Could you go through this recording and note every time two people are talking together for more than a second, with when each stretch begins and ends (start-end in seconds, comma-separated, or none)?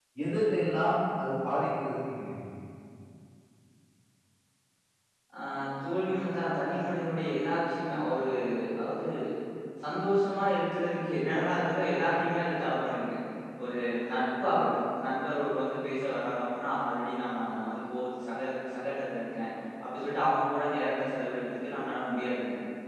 none